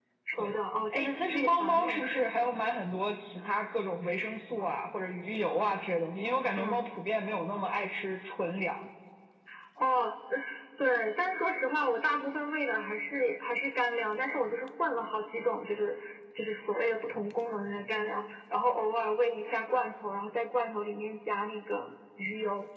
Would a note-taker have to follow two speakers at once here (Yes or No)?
Yes